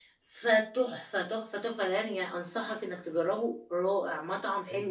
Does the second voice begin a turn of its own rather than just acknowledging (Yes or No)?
Yes